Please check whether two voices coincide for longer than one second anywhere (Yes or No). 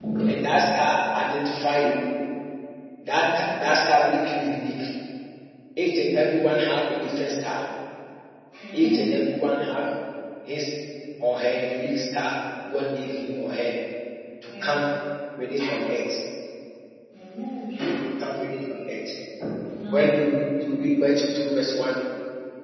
No